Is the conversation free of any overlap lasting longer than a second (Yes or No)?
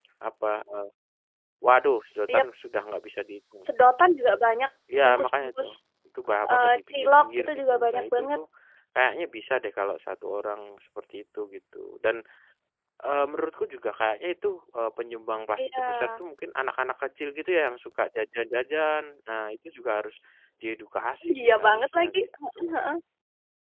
No